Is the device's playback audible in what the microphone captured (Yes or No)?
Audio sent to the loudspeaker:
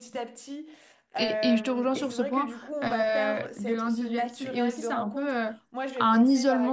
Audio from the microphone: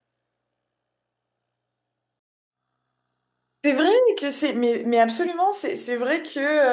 No